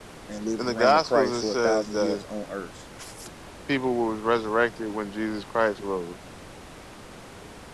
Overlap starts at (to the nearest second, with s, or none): 1 s